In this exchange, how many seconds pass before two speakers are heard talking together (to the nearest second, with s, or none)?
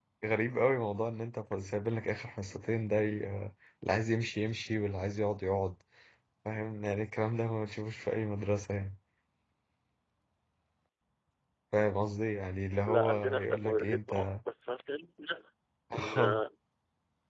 13 s